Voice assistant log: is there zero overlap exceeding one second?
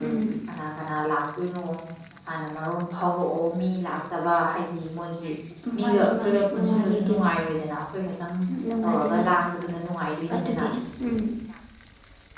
No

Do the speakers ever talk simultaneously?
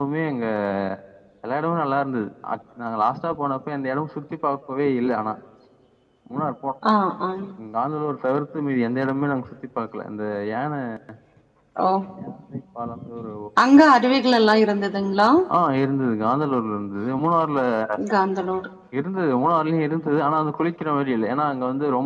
No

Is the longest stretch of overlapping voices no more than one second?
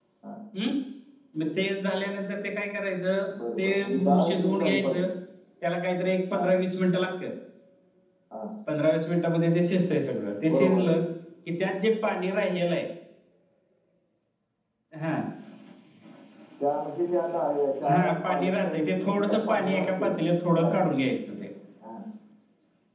No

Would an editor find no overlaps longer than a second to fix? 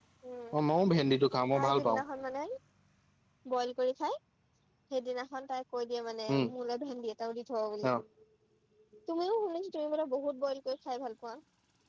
Yes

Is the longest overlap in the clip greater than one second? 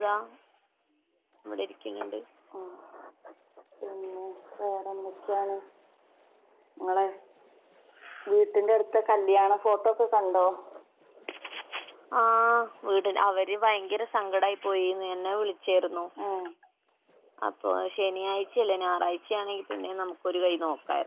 No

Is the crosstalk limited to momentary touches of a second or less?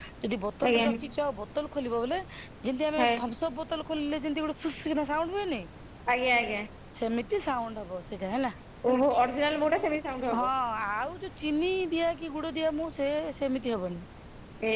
Yes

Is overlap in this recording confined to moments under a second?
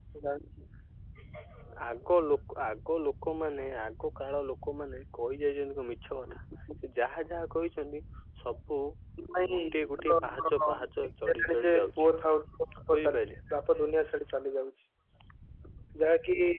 No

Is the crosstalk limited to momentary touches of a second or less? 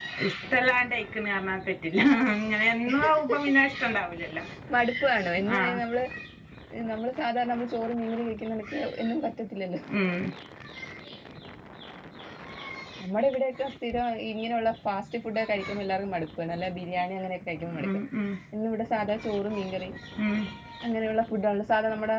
Yes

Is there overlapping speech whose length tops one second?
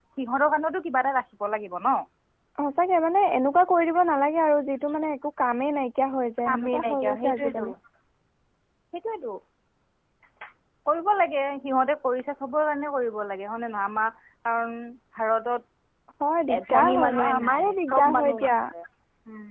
Yes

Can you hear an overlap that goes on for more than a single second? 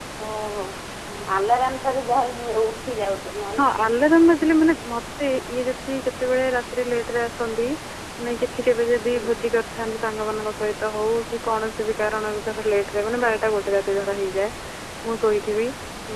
No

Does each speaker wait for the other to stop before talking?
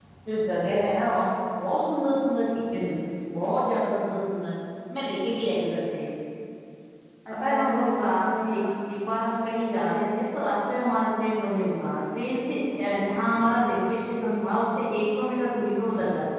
No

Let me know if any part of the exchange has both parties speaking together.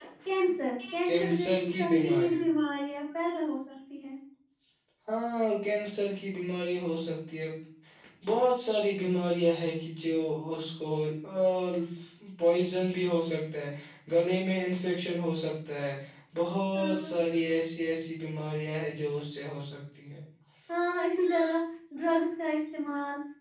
Yes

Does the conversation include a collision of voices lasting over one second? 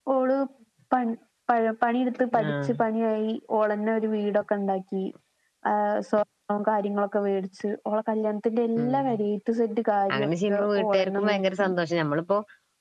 Yes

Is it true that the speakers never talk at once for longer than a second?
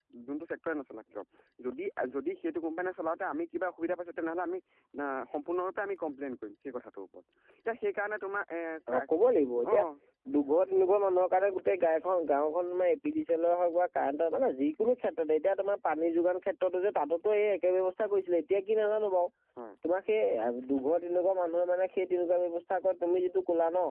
Yes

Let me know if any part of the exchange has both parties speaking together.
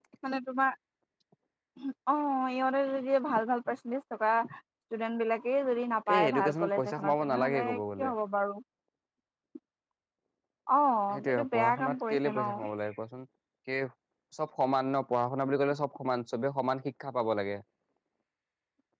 Yes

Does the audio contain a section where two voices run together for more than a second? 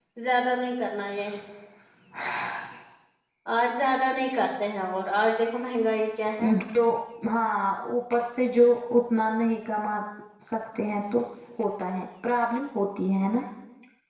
No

